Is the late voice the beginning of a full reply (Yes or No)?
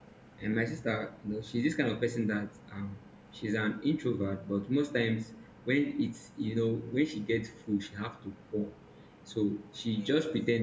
No